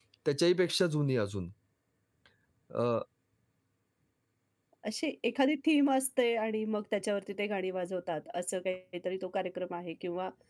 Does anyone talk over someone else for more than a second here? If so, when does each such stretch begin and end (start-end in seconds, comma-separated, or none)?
none